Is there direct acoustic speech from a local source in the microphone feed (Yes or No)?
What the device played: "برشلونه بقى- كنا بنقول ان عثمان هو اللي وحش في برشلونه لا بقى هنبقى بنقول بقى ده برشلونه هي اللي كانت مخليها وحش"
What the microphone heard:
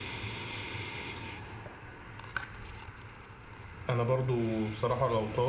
Yes